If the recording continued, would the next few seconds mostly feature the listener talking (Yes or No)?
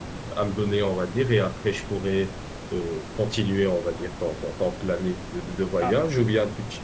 No